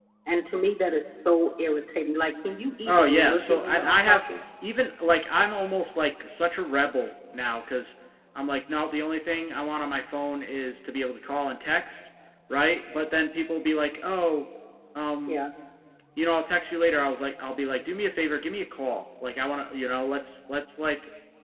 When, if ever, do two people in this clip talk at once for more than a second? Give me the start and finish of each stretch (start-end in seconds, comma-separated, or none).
2.9-4.2